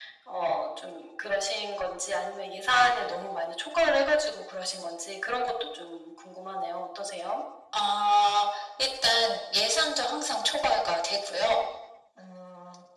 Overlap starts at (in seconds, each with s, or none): none